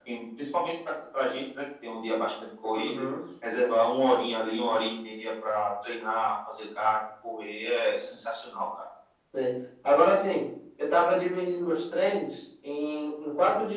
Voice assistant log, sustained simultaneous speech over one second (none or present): none